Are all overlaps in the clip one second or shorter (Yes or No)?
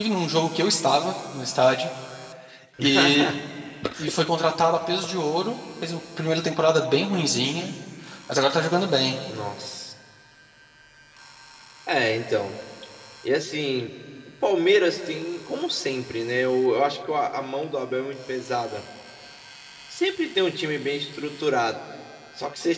Yes